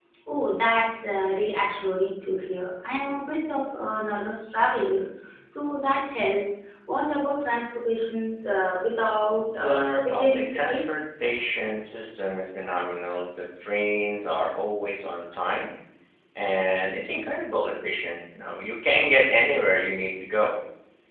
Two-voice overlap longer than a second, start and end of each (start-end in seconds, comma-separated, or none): 9.5-10.9